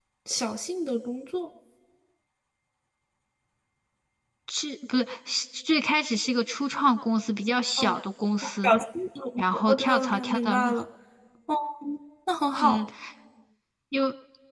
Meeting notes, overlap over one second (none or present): present